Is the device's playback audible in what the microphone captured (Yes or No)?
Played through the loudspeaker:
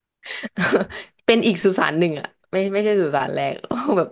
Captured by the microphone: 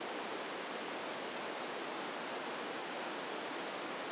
No